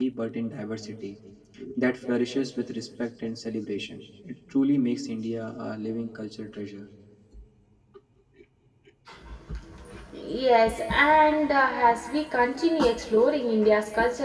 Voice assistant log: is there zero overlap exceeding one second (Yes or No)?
Yes